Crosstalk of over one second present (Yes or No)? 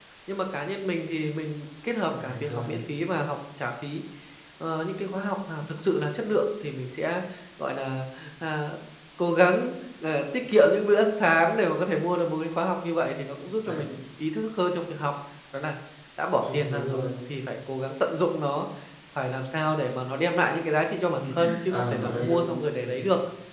Yes